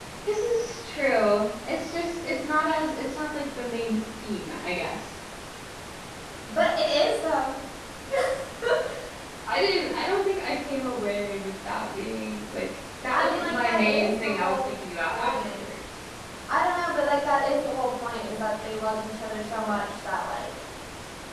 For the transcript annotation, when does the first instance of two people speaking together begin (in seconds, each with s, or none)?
13.1 s